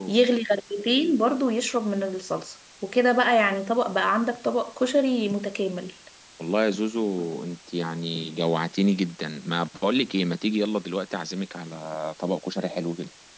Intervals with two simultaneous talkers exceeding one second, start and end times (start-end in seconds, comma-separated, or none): none